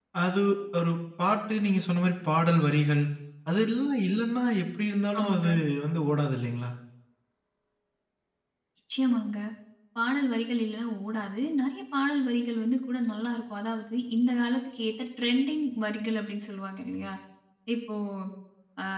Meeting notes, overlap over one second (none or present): none